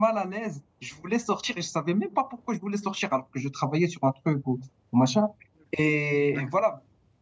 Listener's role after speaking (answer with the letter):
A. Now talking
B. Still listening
B